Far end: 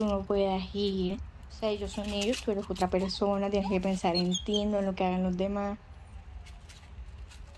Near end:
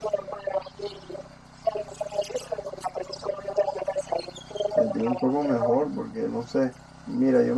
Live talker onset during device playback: 4.7 s

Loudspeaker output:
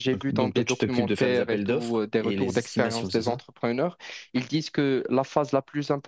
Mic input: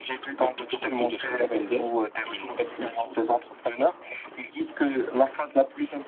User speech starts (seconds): none

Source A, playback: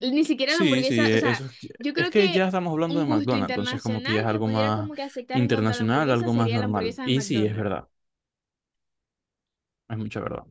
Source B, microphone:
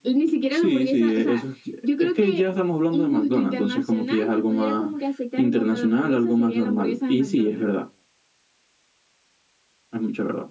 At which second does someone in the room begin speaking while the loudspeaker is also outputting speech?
none

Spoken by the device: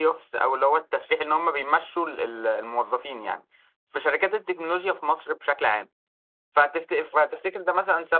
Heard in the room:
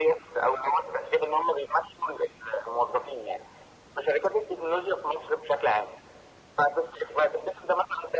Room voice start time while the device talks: none

